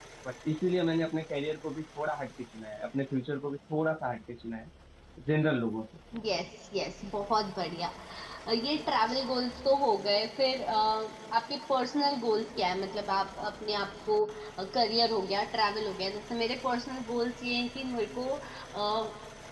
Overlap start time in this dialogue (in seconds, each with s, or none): none